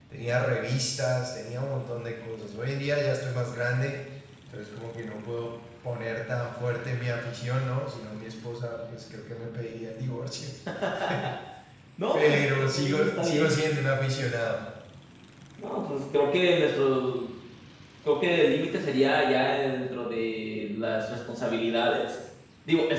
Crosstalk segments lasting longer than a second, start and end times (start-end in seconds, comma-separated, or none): 12.1-13.6